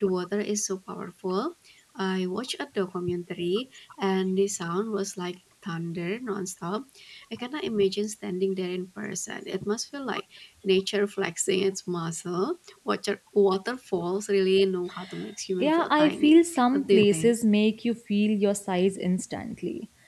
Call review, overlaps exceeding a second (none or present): present